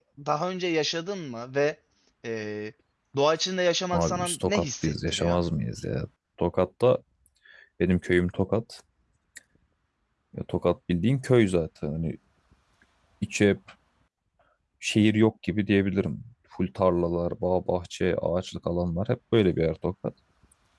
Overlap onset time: 3.9 s

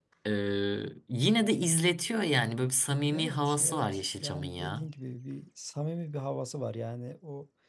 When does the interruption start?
3.1 s

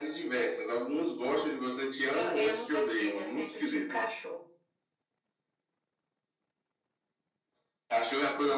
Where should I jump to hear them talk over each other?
2.1 s

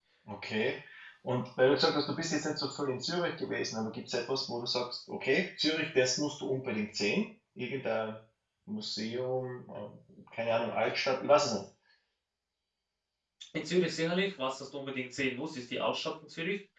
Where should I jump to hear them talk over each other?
none

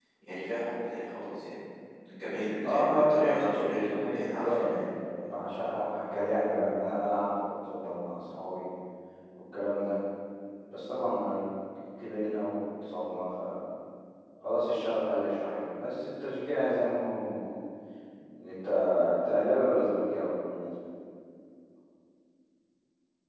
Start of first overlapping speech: 2.6 s

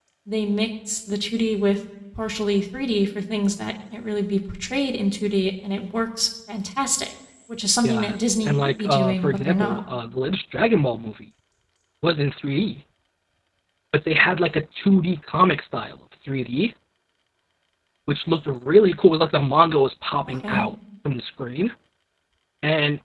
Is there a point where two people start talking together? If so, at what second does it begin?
7.8 s

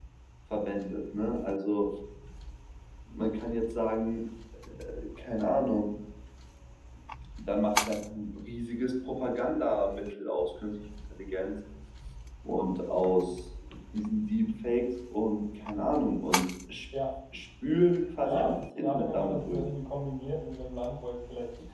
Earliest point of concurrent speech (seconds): 18.2 s

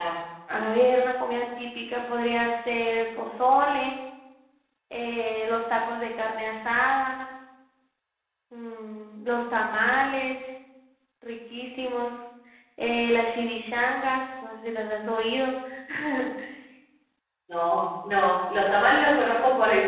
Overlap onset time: none

